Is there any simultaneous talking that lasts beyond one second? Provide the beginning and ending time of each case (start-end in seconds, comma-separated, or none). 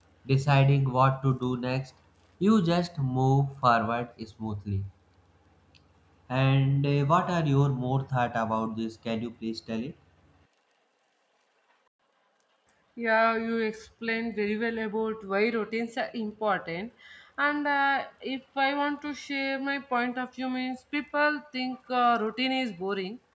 none